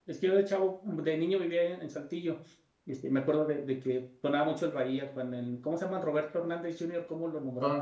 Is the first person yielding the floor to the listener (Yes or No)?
Yes